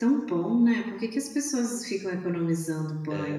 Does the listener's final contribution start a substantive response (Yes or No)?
Yes